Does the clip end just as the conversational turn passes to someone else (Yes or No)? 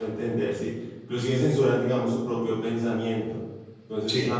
No